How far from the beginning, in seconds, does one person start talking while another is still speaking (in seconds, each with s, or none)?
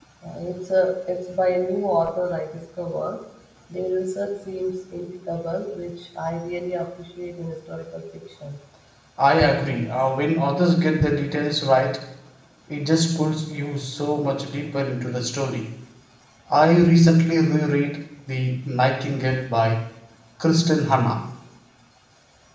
none